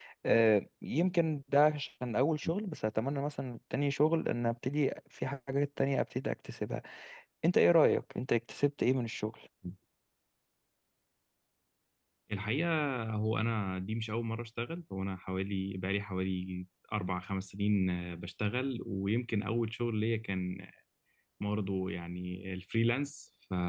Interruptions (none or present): none